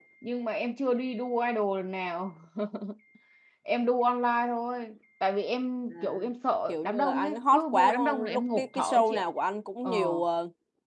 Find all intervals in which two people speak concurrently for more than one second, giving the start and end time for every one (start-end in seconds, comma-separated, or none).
6.7-9.2